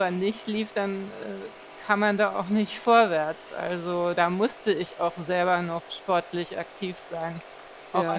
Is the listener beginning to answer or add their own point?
Yes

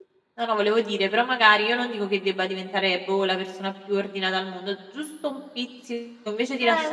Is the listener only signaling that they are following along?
Yes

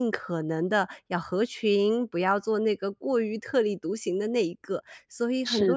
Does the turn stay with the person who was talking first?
No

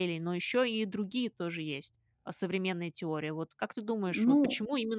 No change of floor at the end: Yes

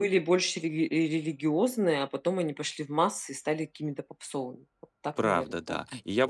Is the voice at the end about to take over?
Yes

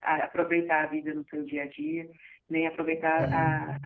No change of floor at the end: Yes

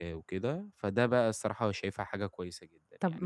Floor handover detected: Yes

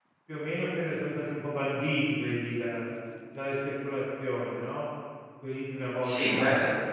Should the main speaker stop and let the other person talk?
Yes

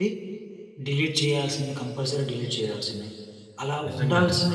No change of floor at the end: Yes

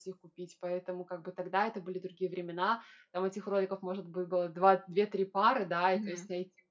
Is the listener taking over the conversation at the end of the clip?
No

